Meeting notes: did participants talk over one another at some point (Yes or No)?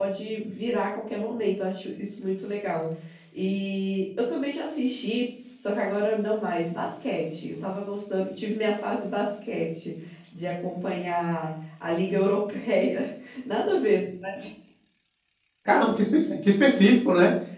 No